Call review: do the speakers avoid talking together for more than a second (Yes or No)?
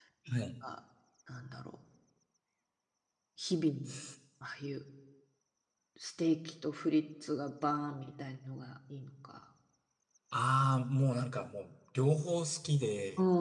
Yes